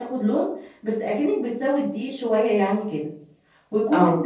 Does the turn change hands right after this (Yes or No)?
No